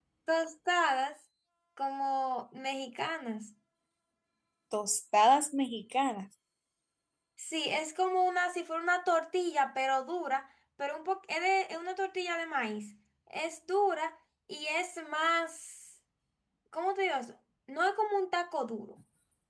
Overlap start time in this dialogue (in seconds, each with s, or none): none